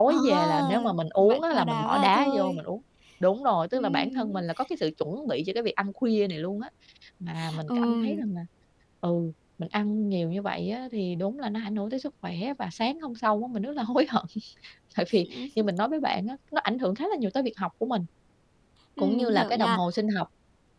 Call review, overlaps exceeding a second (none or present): present